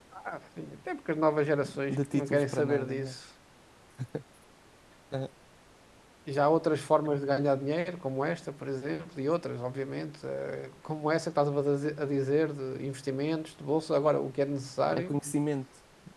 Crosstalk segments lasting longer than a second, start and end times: 1.9-3.1

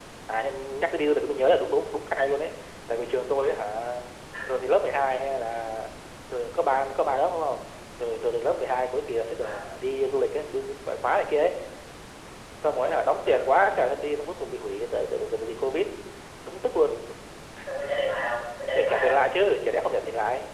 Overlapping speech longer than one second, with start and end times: none

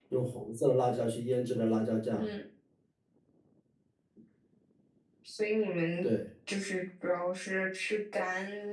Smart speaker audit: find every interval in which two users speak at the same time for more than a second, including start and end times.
none

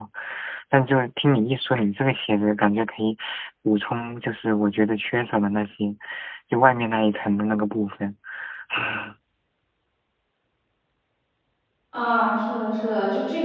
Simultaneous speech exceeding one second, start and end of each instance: none

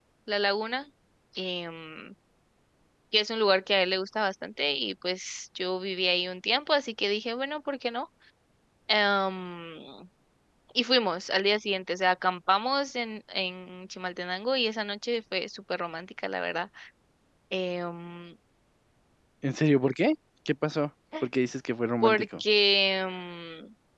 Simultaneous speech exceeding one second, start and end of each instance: none

